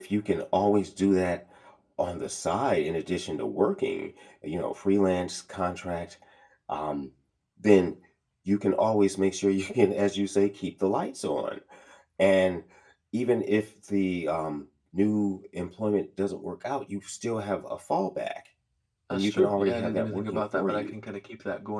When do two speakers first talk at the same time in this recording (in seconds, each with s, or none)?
19.1 s